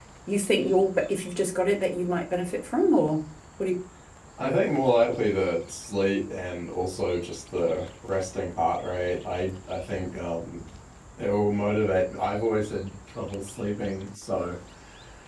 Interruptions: none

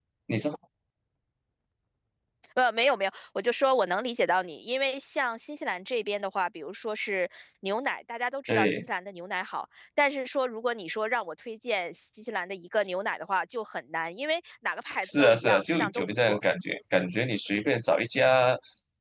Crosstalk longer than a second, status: present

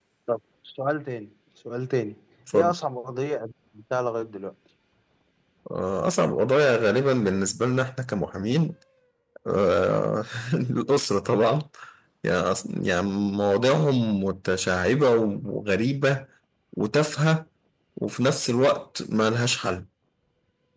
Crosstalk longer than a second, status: none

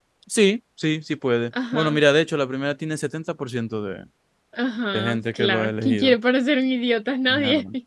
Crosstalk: present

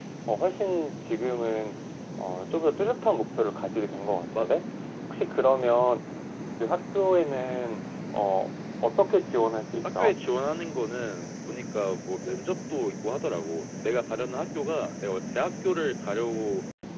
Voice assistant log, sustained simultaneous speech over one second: none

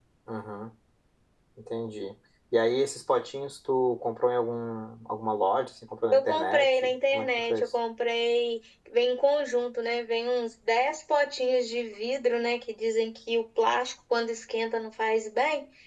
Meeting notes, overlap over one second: present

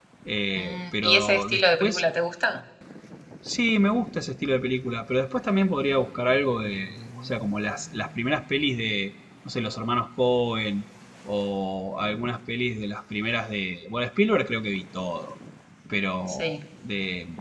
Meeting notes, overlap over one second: present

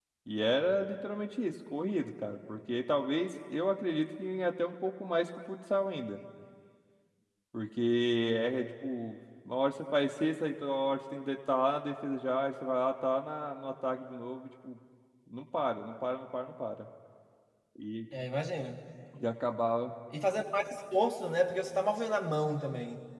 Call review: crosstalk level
none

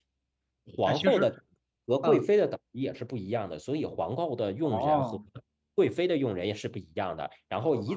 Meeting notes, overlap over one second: none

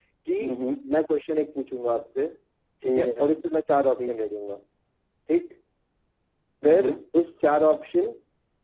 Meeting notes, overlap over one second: none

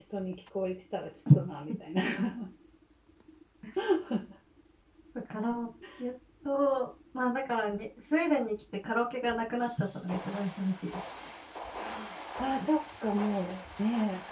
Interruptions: none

